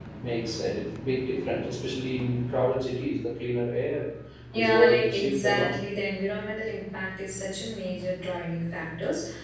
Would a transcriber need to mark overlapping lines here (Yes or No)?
Yes